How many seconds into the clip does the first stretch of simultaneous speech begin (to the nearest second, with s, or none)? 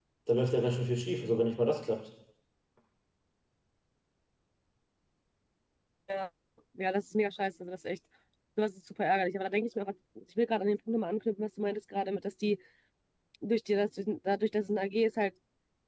none